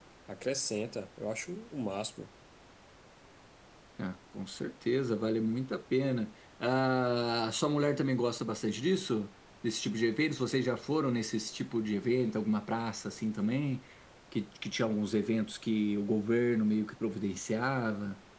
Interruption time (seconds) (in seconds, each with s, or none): none